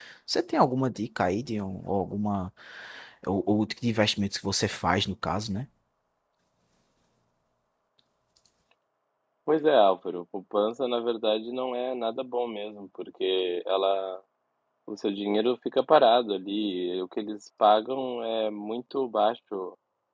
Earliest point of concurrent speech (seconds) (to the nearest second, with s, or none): none